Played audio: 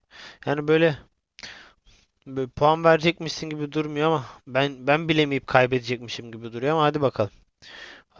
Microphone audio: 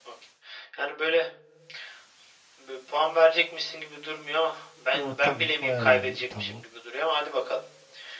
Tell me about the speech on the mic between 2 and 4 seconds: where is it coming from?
echo only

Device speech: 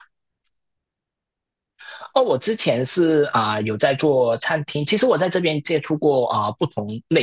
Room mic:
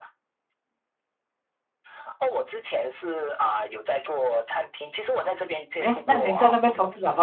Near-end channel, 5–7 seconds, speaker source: both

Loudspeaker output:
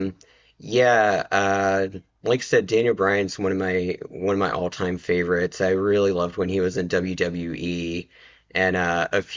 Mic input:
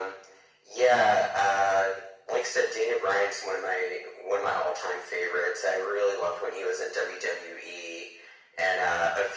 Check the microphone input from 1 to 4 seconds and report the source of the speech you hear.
echo only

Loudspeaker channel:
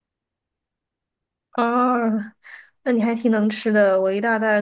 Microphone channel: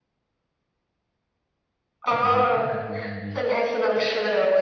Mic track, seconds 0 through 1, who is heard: neither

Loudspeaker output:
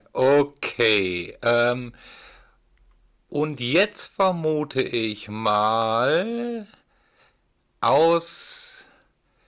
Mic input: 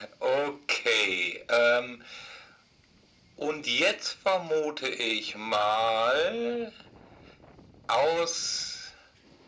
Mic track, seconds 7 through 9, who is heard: echo only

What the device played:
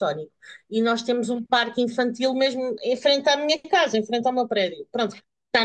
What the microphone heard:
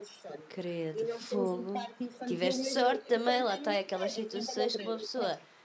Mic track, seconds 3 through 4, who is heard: both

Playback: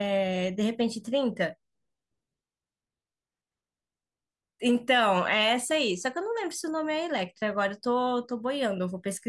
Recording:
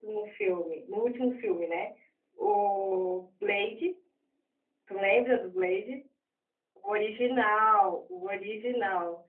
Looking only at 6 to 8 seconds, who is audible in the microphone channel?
user only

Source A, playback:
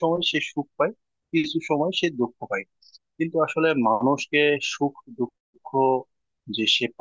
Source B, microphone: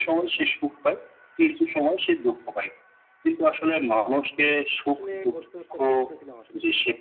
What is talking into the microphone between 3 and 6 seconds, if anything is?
both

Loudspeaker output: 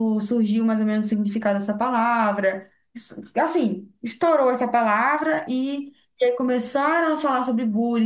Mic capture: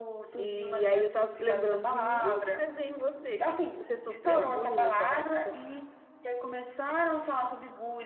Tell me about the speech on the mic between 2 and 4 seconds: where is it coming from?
both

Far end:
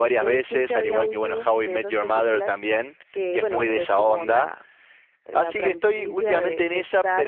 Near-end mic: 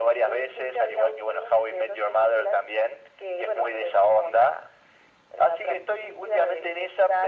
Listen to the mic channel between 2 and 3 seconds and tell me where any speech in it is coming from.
echo only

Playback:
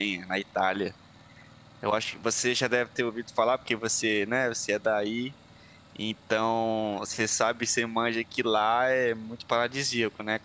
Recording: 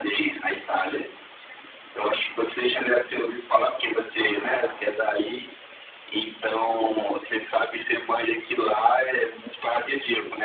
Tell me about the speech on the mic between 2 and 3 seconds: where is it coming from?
echo only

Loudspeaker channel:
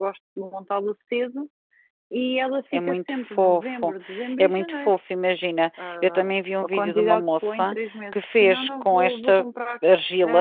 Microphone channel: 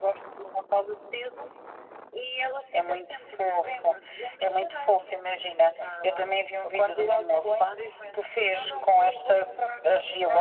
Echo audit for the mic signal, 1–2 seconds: echo only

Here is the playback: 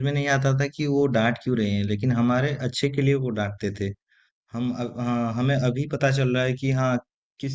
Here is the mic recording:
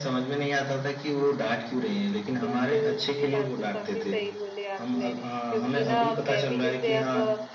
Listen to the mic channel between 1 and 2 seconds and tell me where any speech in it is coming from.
echo only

